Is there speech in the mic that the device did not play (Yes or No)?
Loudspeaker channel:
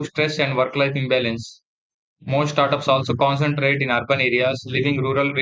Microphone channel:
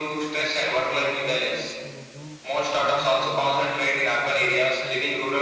Yes